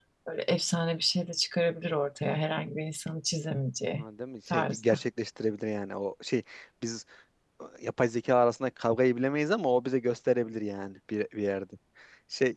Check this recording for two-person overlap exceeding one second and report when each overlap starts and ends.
none

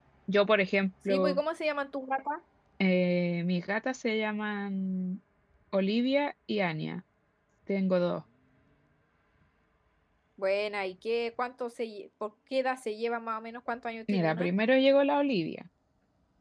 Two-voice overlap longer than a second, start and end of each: none

